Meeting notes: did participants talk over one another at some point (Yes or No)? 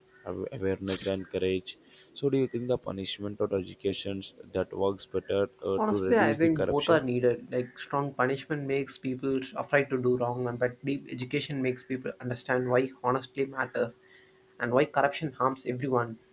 Yes